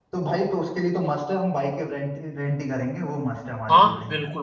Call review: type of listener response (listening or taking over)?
taking over